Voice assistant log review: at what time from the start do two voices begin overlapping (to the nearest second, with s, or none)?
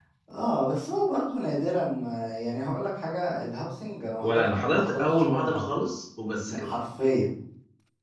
4 s